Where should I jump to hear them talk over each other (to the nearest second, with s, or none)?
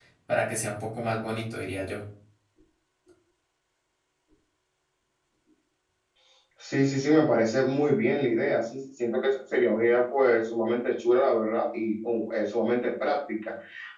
none